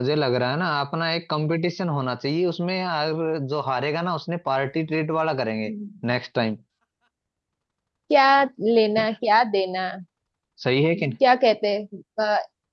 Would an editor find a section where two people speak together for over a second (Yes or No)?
No